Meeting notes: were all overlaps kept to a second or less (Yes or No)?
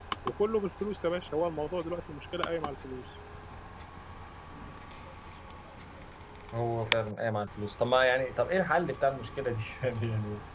Yes